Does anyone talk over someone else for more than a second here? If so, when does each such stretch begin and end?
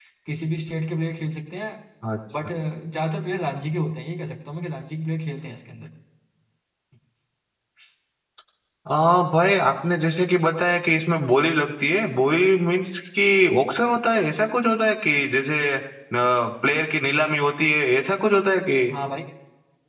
none

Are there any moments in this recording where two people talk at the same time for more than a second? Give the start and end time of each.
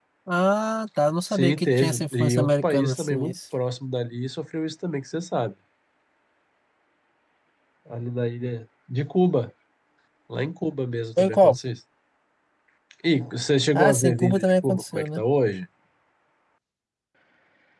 1.3-3.4, 13.7-15.2

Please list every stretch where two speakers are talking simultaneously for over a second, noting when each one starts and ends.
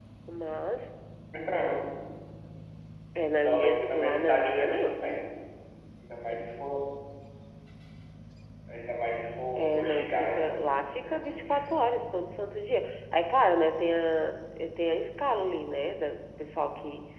3.4-5.0, 9.6-11.5

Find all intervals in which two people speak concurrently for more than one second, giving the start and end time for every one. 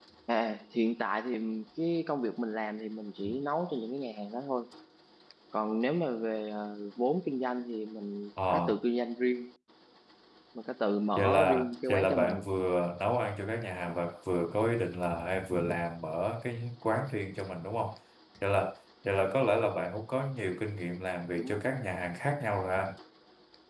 11.2-12.5

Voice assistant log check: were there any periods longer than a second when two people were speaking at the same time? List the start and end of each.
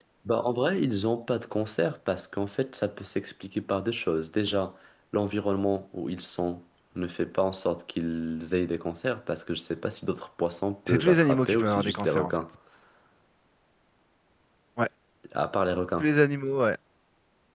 10.9-12.3

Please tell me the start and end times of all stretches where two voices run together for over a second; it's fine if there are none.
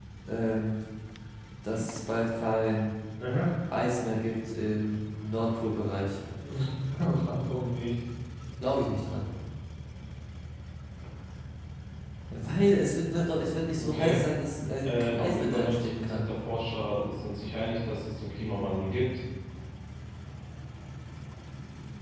14.8-16.2

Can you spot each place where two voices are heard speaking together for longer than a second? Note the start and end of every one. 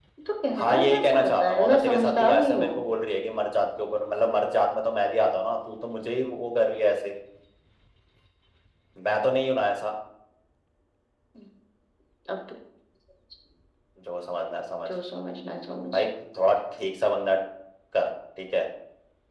0.6-2.8

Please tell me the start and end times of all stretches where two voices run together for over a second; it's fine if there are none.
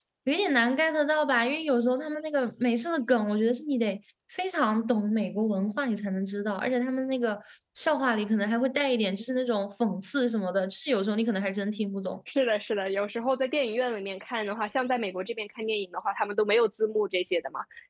none

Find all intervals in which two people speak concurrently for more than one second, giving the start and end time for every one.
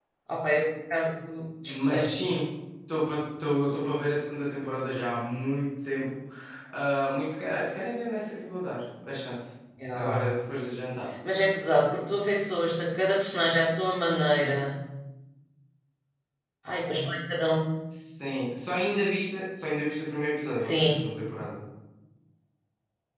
none

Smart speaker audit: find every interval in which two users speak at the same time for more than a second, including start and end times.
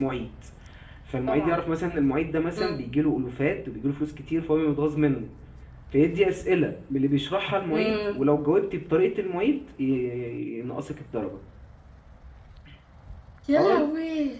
none

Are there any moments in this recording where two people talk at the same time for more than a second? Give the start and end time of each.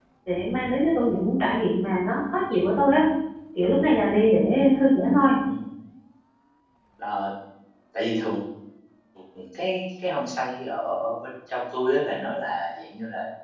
none

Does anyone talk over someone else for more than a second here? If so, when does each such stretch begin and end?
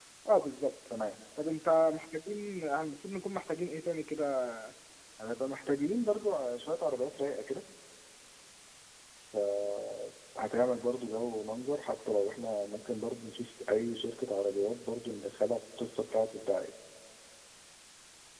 none

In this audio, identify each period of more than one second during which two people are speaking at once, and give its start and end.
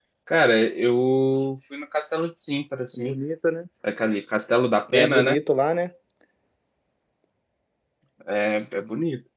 none

